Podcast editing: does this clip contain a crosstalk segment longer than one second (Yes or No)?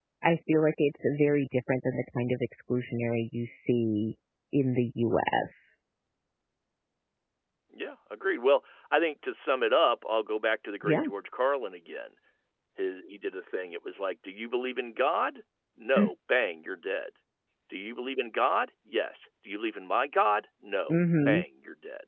No